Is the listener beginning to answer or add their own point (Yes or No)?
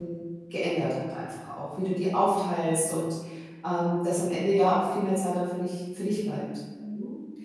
Yes